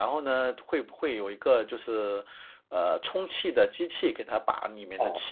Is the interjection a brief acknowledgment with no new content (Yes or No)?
No